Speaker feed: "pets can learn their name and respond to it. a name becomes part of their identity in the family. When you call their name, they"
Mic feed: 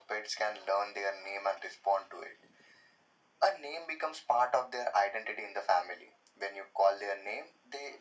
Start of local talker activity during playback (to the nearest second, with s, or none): none